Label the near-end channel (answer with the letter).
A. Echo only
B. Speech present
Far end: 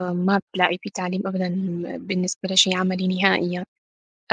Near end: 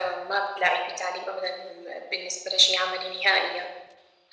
A